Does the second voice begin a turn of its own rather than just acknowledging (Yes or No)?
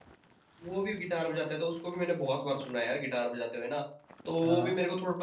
No